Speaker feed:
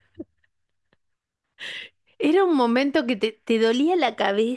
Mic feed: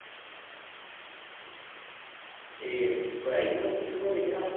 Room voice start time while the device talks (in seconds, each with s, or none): 2.6 s